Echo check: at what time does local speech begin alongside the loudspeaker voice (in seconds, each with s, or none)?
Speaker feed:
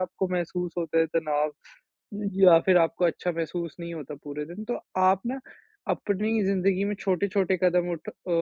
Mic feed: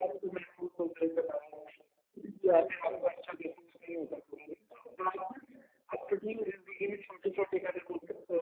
none